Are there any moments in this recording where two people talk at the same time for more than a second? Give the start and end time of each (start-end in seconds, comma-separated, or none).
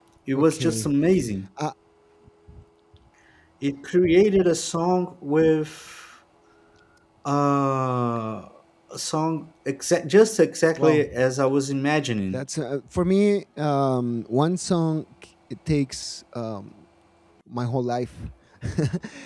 none